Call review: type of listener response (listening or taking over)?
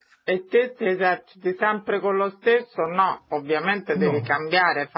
listening